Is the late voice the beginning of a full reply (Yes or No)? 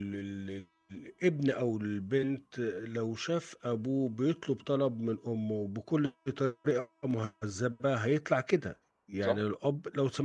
No